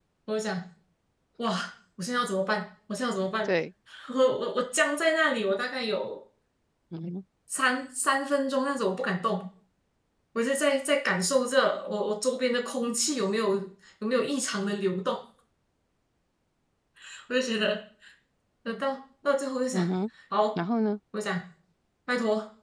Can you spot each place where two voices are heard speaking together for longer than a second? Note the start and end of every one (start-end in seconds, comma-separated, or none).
none